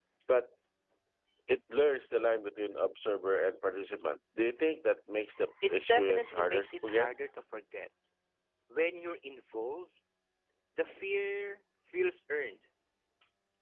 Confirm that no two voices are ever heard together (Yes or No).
No